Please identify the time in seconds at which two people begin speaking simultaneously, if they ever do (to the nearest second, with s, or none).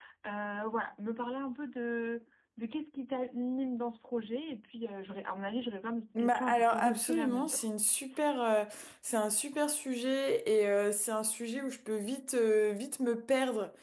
6 s